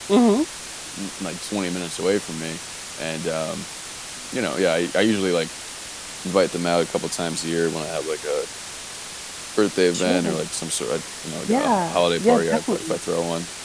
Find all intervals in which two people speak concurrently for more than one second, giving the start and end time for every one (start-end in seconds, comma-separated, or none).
11.5-13.0